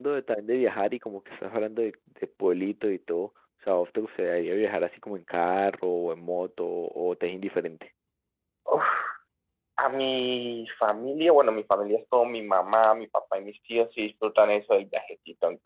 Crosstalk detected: No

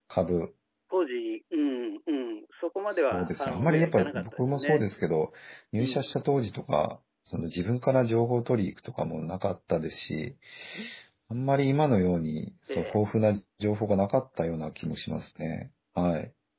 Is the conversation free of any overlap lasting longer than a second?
No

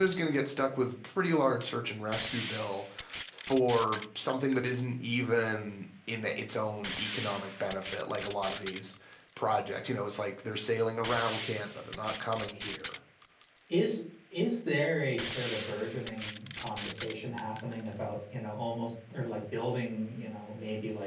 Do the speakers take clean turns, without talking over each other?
Yes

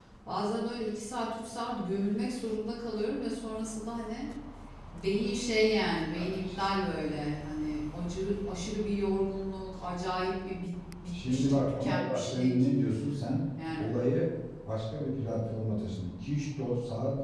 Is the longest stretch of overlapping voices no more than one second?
No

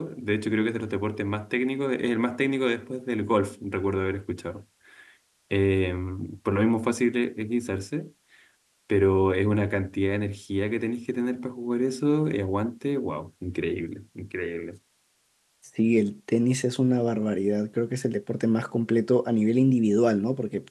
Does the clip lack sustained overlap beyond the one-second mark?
Yes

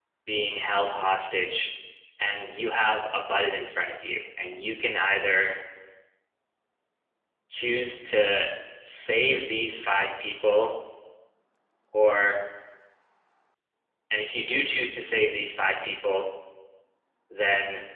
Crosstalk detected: No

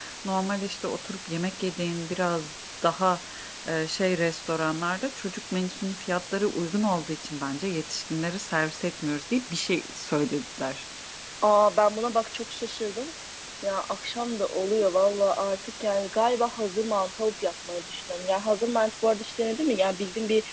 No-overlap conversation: Yes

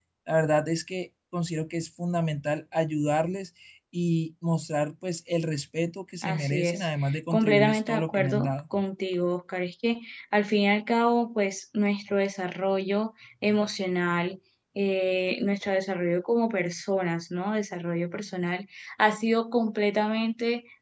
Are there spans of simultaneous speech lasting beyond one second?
Yes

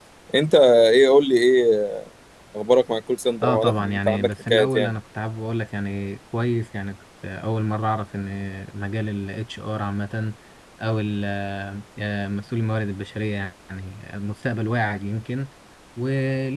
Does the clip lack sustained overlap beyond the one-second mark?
No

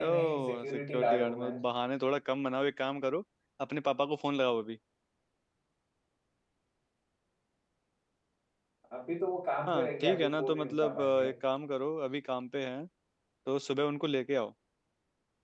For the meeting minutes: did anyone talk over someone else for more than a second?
Yes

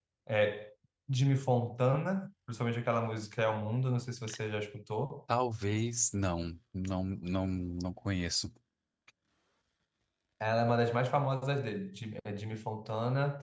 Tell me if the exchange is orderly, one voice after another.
Yes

